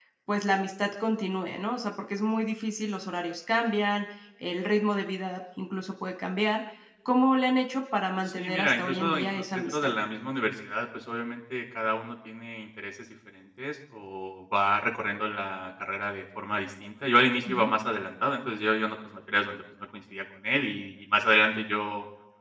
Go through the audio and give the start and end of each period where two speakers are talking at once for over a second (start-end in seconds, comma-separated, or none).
8.3-9.9